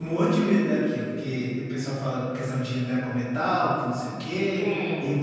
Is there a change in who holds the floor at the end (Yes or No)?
No